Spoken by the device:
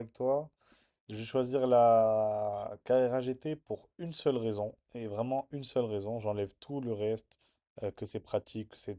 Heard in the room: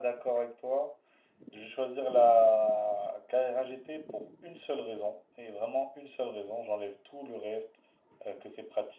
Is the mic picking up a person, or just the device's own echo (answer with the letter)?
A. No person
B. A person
A